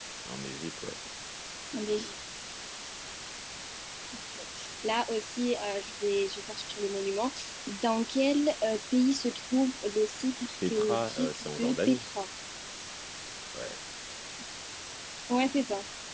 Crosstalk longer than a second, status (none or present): present